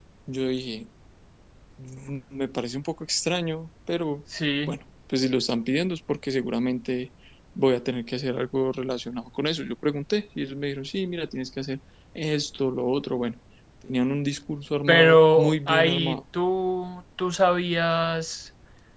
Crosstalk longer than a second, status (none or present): present